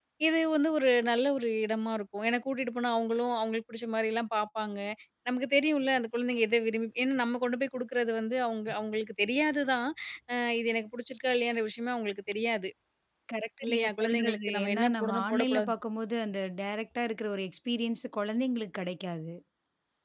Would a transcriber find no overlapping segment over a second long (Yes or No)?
No